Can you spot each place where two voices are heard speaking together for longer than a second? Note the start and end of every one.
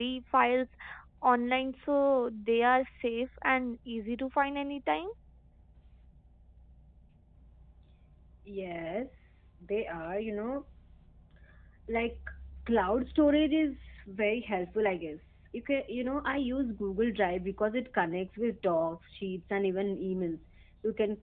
none

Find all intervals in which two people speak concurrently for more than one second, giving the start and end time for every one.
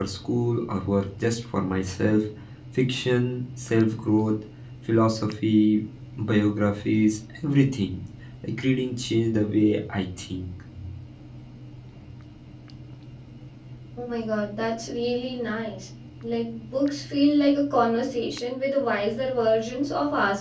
none

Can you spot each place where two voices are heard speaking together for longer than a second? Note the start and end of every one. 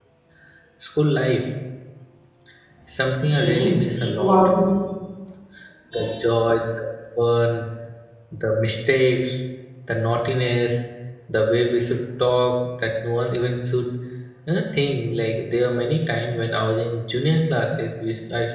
3.1-4.4

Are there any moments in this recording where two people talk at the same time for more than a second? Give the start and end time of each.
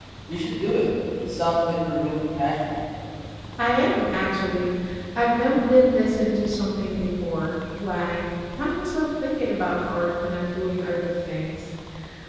none

